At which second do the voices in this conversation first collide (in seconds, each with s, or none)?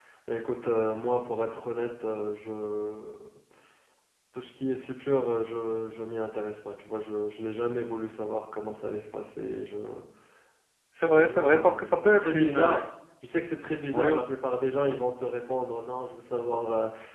11.2 s